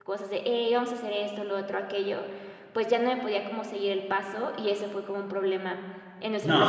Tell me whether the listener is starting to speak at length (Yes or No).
Yes